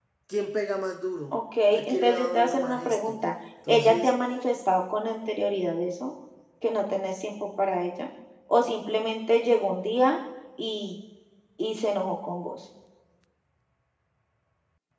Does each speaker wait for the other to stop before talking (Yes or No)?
No